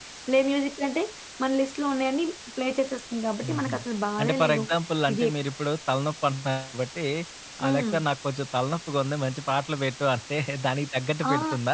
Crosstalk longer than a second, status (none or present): none